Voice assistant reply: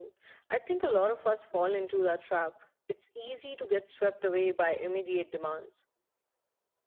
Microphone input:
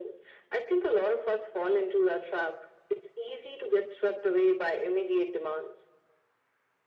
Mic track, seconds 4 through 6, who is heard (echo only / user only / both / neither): echo only